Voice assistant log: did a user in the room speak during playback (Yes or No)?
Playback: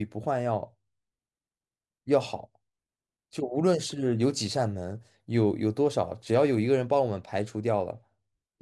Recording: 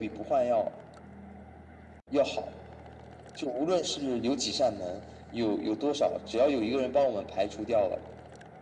No